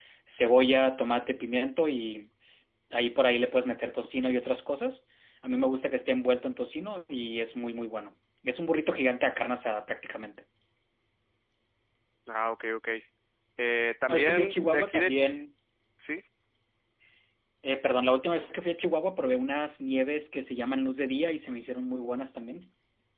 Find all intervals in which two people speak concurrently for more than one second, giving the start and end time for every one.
14.1-15.3

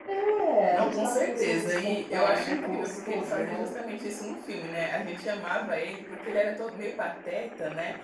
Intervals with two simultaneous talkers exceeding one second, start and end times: 0.7-3.6

